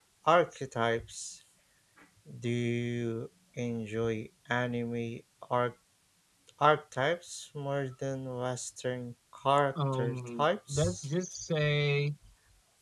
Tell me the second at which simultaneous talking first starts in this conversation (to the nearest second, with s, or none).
10 s